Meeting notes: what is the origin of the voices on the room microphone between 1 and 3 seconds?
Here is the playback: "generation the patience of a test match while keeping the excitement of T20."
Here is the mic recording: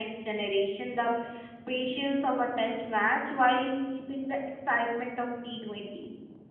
echo only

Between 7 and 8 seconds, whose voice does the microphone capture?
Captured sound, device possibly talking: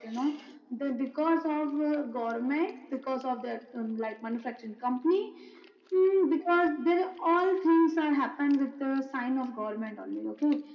echo only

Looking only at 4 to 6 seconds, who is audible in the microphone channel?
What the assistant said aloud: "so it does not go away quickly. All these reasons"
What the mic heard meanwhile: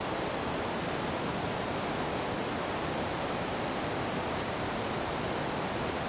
neither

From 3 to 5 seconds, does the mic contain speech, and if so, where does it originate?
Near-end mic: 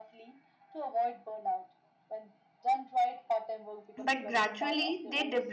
both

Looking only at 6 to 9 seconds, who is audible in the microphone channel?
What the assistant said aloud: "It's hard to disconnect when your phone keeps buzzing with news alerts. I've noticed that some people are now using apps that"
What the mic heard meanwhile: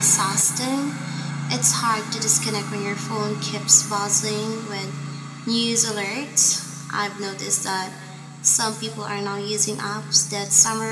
echo only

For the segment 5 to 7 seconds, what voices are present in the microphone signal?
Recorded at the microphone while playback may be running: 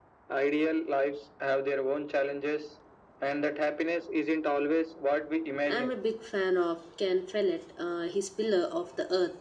both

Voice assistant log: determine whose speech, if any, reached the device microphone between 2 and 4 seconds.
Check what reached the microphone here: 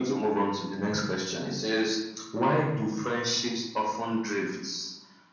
echo only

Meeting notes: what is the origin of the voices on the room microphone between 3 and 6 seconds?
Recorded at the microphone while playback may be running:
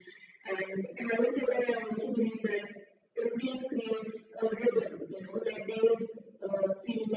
echo only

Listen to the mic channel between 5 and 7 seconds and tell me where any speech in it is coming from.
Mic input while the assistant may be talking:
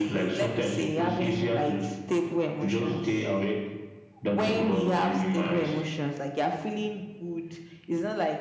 echo only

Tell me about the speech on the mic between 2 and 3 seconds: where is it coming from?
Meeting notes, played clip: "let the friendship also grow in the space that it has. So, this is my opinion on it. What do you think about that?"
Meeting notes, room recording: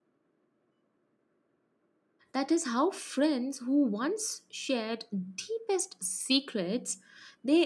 user only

